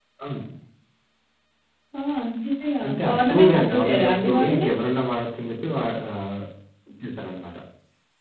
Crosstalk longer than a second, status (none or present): present